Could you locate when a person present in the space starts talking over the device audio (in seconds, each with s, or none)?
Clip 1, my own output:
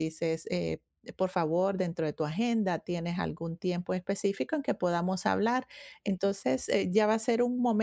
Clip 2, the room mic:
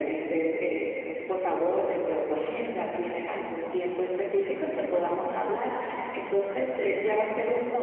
none